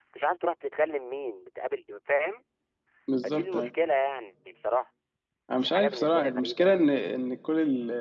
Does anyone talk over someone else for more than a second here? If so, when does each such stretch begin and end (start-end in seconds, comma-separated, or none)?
5.6-6.8